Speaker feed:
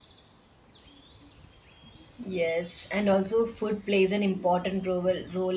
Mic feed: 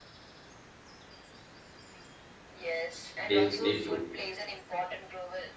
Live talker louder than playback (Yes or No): Yes